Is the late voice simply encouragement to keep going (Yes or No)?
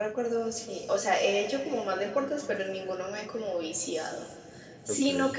Yes